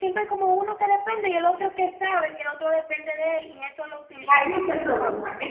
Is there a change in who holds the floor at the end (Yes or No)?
Yes